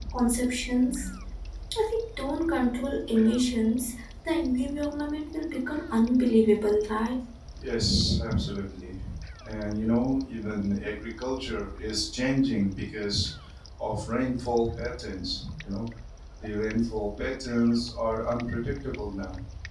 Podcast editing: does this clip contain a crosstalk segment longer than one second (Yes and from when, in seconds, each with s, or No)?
No